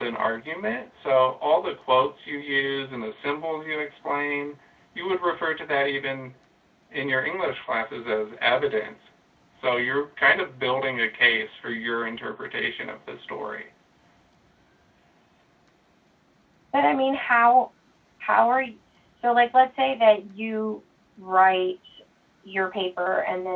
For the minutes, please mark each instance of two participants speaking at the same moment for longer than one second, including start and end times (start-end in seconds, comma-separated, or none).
none